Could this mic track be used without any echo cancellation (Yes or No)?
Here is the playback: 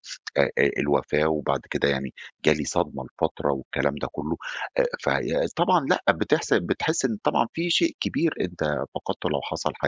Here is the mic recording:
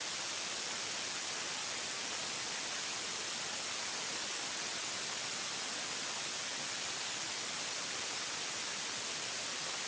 Yes